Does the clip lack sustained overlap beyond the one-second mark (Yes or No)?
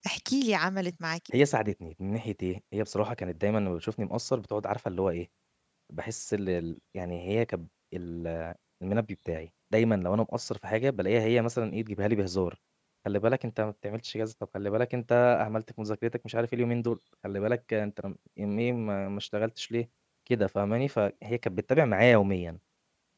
Yes